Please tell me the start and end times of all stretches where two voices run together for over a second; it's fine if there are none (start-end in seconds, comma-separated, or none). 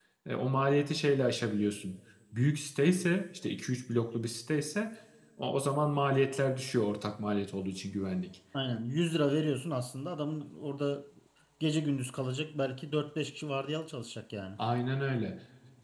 none